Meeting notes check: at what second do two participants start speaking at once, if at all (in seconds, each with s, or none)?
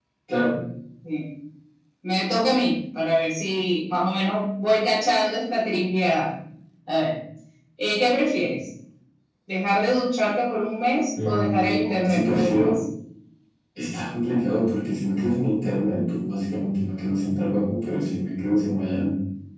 11.2 s